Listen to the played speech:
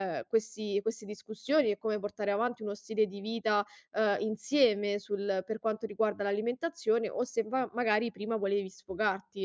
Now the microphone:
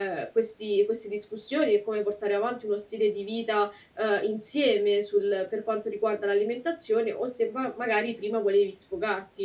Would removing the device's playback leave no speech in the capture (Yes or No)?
Yes